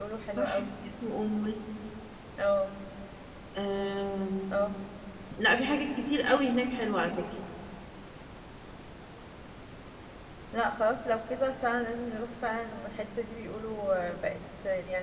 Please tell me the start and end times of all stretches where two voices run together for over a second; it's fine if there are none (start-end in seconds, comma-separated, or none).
none